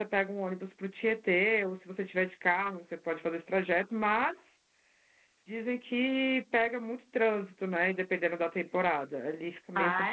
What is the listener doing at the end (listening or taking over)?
taking over